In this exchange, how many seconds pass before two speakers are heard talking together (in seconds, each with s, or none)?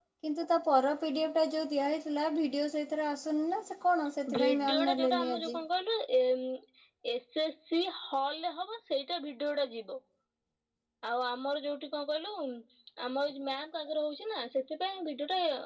4.3 s